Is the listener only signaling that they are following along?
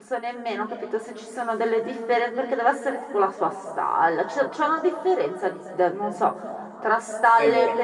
Yes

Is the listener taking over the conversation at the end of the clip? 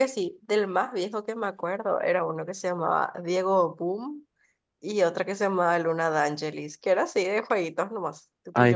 No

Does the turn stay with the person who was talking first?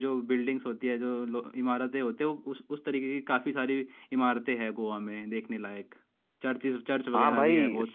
No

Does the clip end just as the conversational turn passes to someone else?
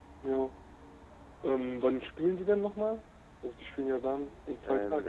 Yes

